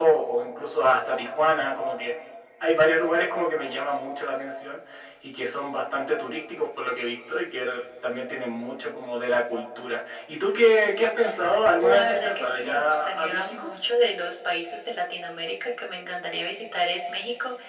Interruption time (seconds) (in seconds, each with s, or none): 11.8 s